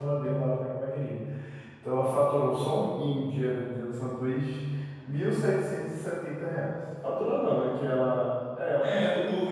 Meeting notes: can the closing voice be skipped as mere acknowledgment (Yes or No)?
No